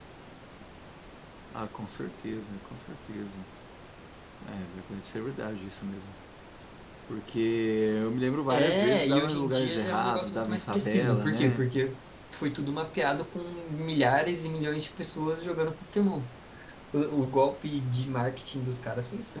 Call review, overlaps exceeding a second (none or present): present